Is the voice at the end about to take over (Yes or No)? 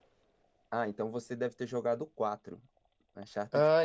Yes